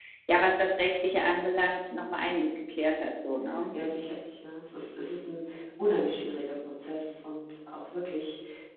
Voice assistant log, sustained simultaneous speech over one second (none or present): none